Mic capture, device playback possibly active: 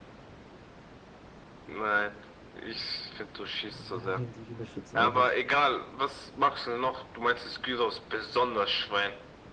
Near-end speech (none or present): present